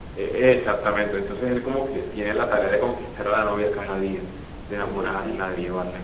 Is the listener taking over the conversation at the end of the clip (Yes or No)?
No